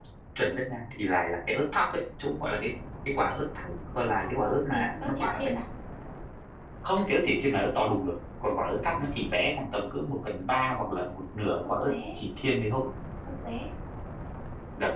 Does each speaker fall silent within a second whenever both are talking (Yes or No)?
No